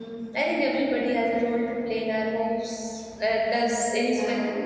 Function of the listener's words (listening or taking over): listening